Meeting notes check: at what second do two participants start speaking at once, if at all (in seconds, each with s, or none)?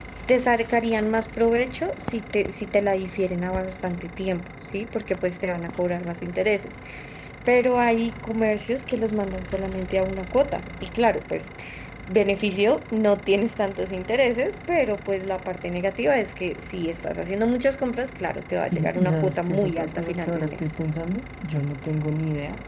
18.7 s